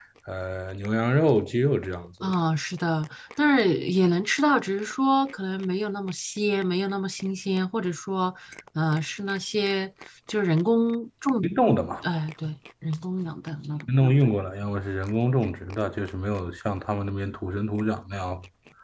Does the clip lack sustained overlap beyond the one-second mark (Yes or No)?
Yes